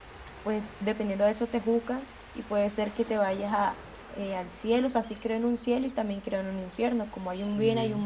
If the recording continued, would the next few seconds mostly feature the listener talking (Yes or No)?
No